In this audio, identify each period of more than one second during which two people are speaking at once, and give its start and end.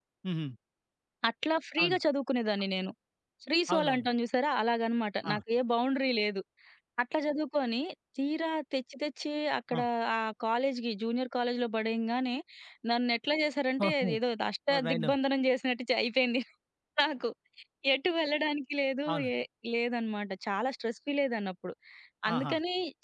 none

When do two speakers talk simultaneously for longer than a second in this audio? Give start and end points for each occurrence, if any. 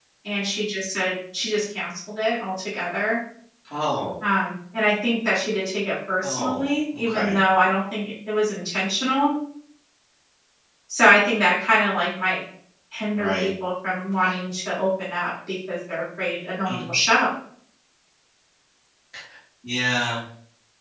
none

